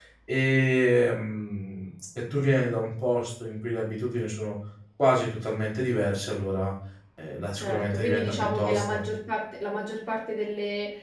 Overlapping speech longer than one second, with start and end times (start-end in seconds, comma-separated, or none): 7.6-9.1